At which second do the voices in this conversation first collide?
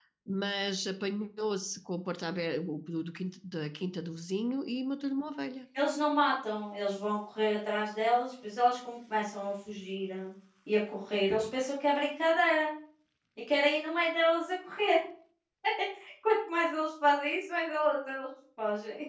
none

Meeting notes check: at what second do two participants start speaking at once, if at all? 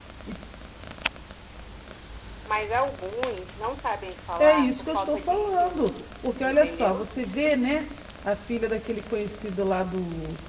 4.4 s

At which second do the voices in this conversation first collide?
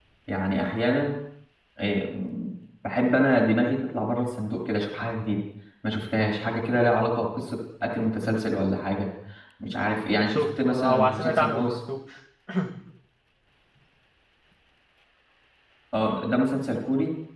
10.3 s

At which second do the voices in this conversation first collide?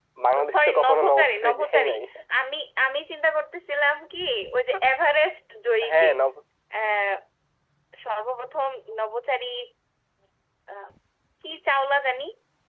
0.5 s

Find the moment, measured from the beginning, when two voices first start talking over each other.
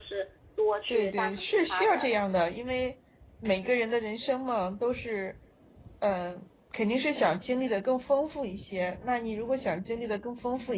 0.9 s

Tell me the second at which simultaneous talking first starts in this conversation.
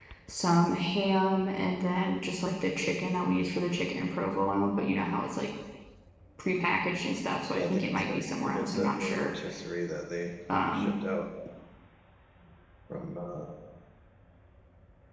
7.5 s

